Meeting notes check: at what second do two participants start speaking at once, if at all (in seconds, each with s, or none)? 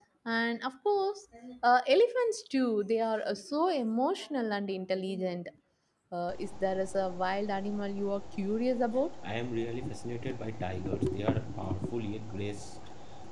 none